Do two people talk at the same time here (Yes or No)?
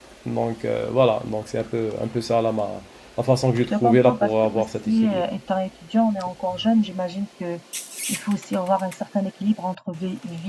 Yes